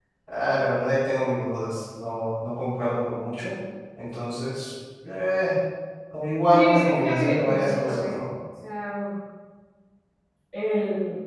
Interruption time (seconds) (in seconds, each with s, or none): 6.5 s